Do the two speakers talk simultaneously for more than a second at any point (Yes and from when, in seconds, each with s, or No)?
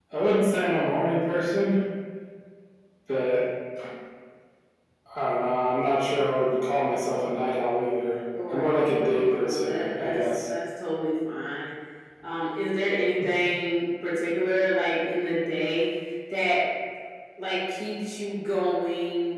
Yes, from 8.3 s